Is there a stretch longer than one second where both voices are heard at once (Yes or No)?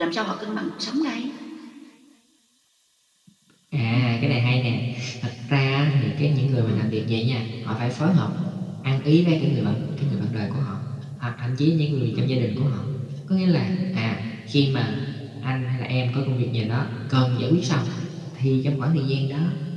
No